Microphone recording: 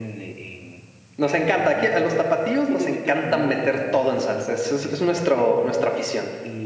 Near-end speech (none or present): present